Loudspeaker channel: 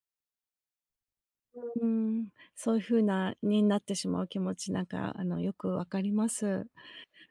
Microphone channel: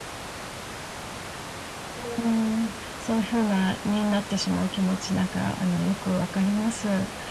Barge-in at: none

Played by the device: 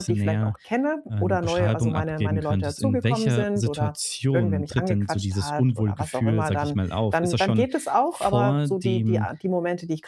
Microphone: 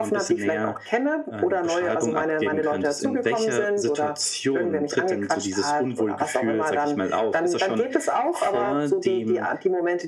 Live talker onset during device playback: none

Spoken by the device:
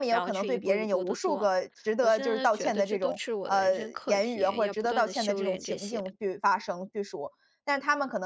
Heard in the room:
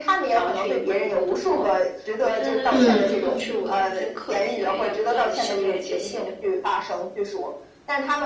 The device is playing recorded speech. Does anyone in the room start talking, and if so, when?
2.7 s

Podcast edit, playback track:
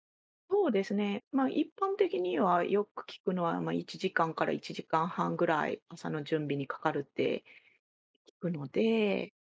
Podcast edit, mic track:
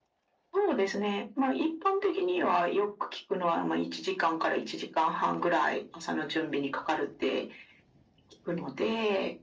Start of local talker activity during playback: none

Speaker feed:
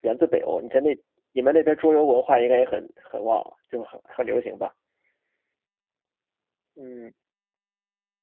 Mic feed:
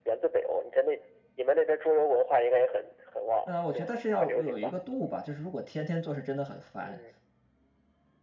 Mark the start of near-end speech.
3.4 s

